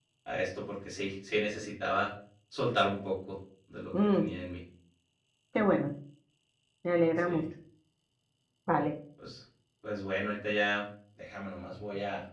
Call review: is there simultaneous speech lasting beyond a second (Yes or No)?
No